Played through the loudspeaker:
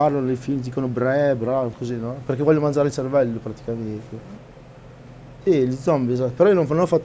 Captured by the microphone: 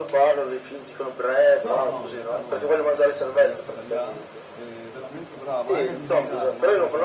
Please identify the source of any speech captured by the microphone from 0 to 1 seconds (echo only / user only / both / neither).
echo only